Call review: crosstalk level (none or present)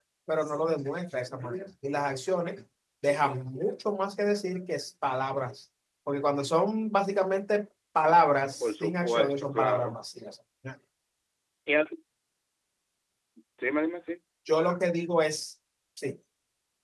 present